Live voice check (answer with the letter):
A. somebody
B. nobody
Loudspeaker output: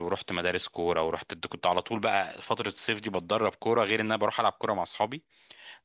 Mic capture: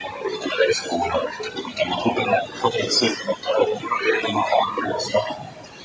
B